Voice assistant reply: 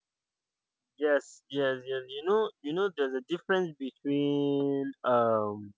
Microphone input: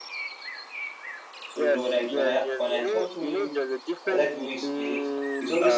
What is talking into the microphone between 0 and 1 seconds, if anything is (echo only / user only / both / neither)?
neither